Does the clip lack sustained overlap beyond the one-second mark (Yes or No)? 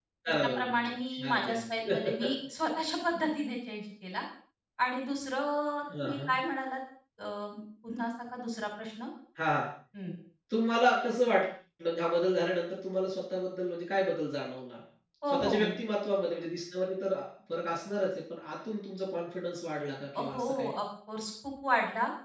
No